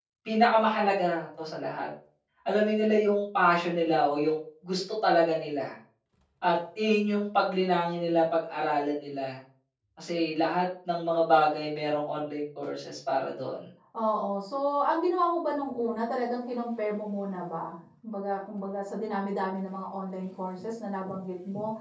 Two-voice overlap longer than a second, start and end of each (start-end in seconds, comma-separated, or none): none